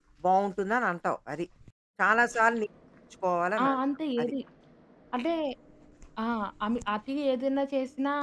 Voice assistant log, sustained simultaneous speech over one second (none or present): none